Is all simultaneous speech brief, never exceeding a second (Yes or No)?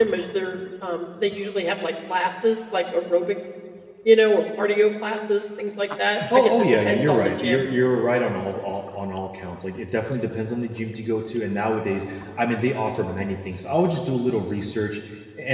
No